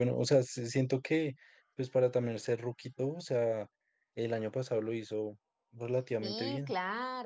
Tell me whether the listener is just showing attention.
No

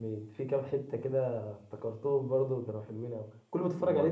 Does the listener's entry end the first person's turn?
Yes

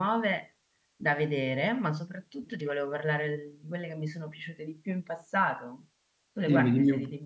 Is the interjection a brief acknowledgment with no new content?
No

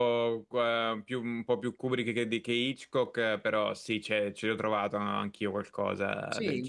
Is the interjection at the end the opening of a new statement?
Yes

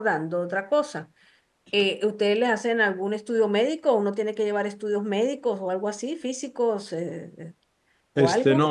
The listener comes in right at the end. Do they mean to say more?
Yes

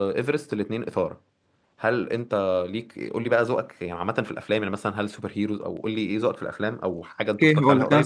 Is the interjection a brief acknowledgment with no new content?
No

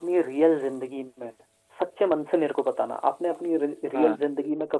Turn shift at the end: No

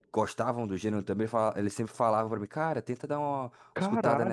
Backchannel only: No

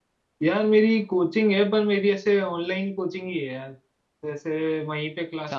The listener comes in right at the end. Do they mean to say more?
No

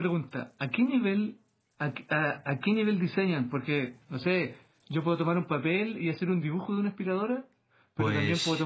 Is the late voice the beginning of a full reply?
No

